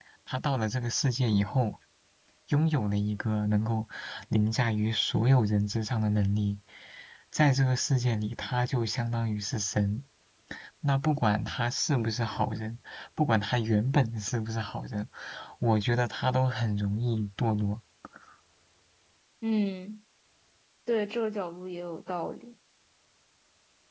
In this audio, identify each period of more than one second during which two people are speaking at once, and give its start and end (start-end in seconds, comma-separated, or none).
none